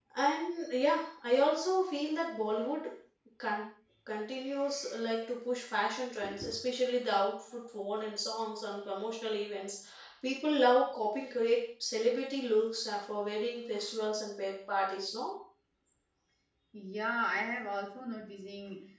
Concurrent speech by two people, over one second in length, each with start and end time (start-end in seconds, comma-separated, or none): none